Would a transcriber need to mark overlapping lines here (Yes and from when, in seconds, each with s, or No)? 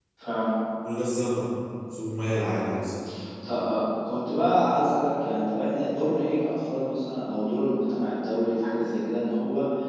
No